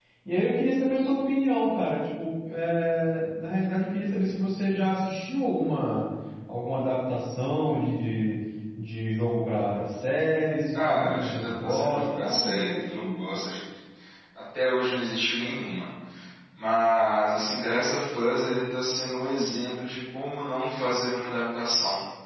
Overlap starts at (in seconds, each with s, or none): 10.7 s